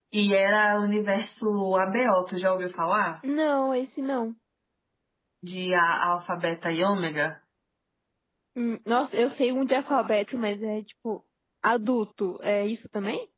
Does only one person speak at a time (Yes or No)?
Yes